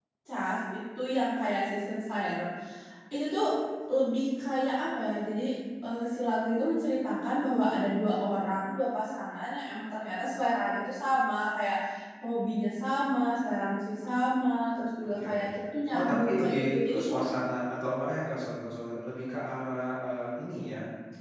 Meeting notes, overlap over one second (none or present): present